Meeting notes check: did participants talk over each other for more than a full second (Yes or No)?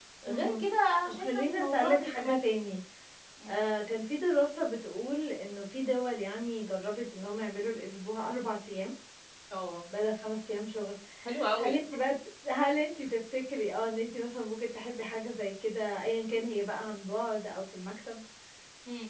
Yes